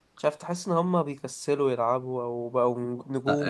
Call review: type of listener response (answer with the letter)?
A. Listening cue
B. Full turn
B